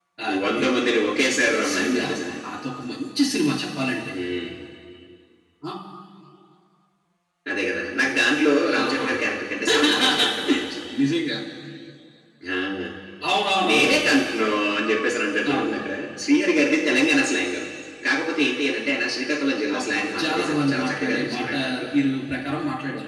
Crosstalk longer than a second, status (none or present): present